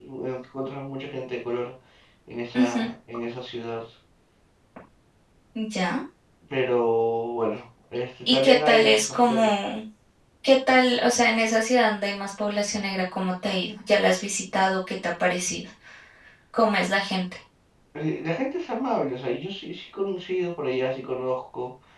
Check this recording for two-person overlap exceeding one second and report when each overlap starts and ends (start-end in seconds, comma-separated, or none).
8.3-9.5